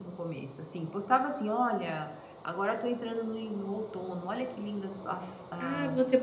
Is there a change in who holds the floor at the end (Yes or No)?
Yes